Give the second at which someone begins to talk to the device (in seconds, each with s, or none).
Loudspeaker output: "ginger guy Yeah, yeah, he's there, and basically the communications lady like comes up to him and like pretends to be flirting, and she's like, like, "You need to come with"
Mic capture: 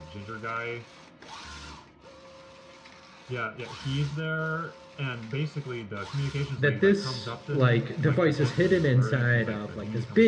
6.6 s